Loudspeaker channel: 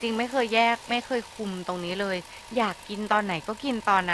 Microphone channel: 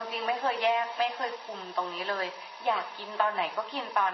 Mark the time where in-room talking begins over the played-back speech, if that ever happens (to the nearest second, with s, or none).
none